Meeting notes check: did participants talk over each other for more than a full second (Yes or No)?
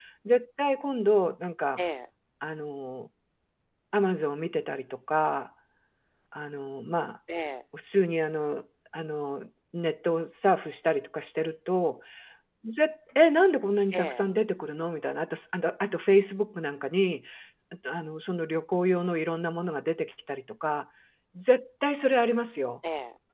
No